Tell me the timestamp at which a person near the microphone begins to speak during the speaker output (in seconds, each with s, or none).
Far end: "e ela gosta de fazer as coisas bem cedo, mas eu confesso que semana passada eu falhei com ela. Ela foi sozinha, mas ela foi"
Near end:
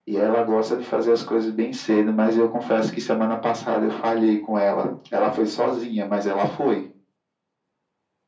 none